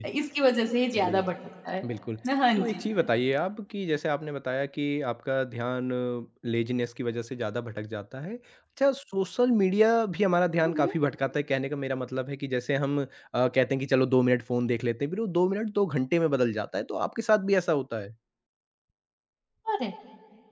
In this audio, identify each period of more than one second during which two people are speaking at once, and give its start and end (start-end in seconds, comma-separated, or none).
none